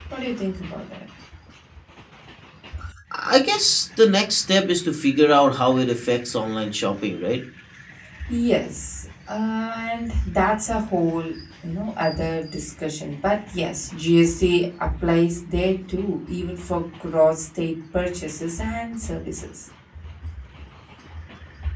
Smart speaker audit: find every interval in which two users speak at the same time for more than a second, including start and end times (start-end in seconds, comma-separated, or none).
none